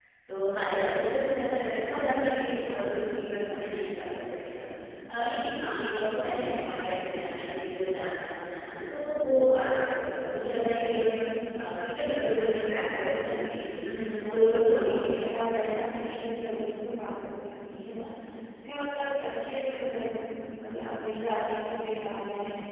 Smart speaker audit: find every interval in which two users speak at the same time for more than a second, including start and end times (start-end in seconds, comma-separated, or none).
14.3-15.8